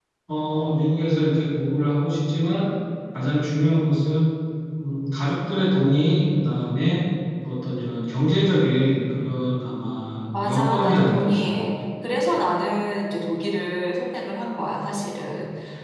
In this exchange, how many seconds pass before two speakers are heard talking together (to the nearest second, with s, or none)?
10 s